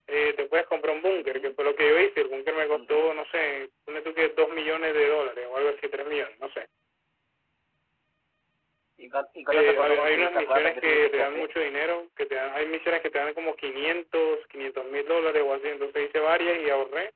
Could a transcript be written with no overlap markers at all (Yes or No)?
No